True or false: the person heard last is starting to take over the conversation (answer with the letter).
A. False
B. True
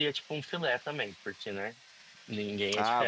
B